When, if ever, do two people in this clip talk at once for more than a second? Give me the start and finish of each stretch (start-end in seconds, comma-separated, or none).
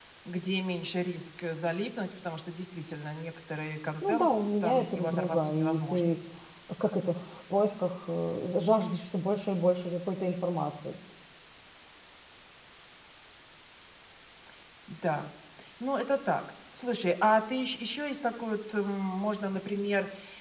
4.1-6.1